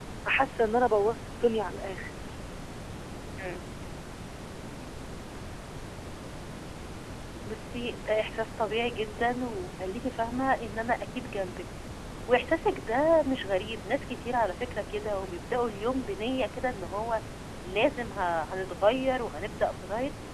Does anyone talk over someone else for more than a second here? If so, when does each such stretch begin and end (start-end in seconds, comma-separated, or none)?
none